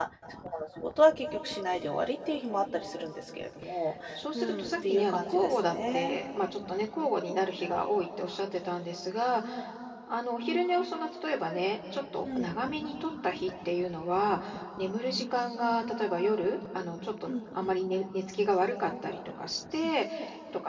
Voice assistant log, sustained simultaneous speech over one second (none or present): present